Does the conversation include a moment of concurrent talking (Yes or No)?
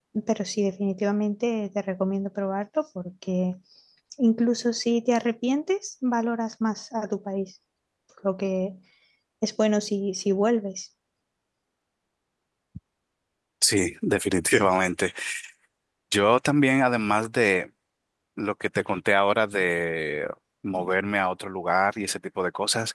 No